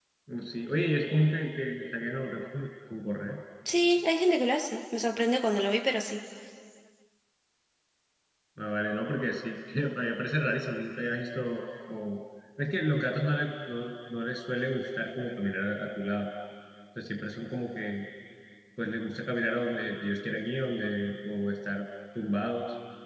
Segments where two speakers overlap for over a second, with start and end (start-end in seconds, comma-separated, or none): none